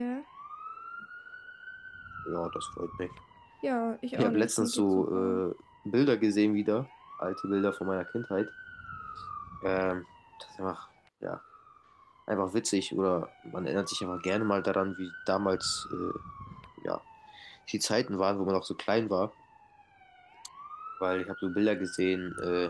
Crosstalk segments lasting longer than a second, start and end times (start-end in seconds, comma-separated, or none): 4.1-5.4